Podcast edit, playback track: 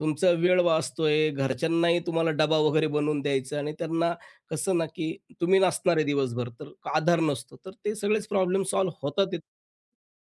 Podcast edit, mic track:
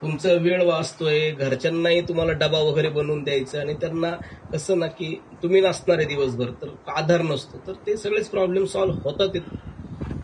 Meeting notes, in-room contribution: none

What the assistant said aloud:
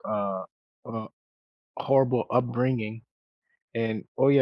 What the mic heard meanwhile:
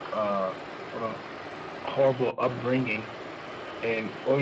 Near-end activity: none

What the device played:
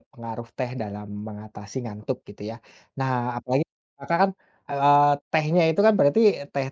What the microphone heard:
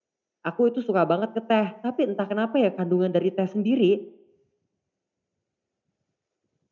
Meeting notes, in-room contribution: present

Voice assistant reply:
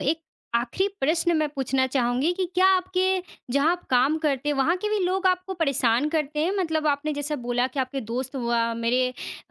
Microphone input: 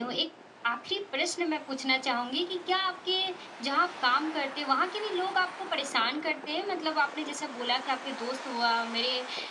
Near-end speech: none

